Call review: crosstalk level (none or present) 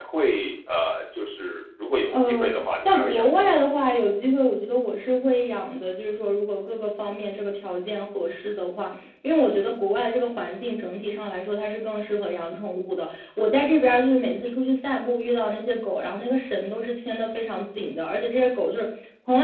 present